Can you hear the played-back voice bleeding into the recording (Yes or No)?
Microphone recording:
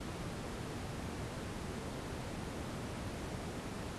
No